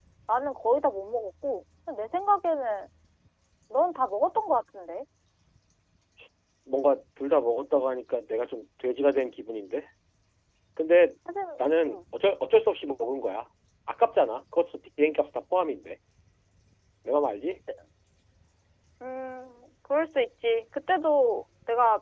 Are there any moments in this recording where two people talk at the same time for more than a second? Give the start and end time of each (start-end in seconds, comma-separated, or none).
none